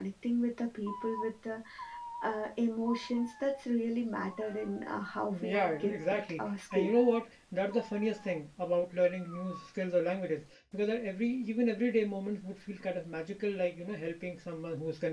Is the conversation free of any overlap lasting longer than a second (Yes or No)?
No